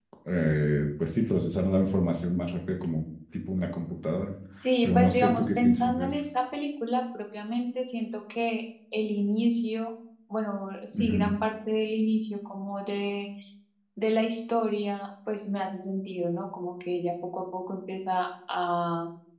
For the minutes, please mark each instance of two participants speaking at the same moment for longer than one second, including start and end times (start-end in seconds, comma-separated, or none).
4.8-6.2